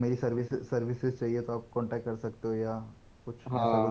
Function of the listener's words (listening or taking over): taking over